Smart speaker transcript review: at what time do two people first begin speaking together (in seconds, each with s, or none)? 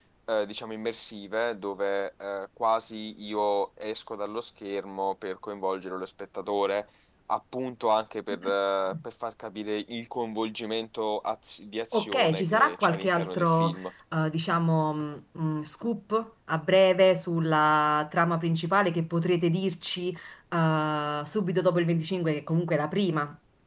11.9 s